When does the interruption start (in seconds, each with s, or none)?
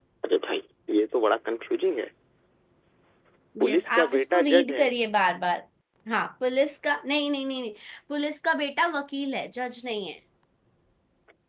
3.6 s